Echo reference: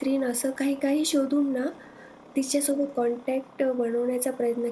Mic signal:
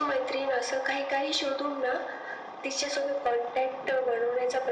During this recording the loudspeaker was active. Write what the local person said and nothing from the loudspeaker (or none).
none